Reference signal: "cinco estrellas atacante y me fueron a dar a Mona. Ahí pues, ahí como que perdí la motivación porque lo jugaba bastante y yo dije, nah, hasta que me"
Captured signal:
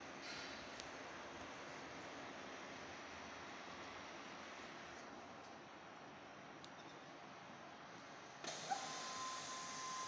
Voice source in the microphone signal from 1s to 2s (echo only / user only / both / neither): neither